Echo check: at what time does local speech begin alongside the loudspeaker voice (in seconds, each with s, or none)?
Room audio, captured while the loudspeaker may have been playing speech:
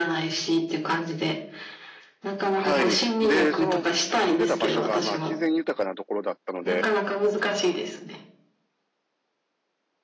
2.5 s